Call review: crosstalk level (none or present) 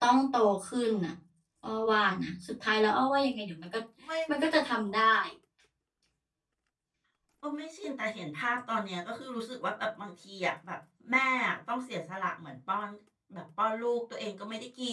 none